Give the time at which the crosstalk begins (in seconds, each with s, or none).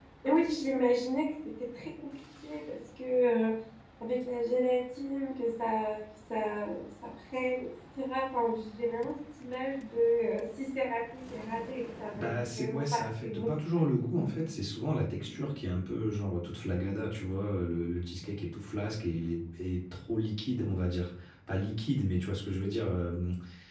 12.1 s